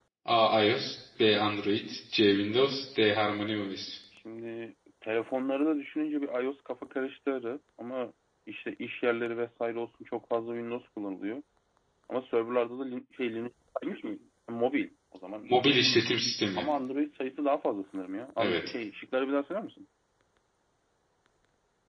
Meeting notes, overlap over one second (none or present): none